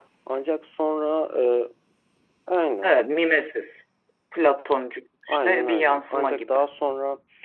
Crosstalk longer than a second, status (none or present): present